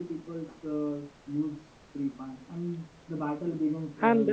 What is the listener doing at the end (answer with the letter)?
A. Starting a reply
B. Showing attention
A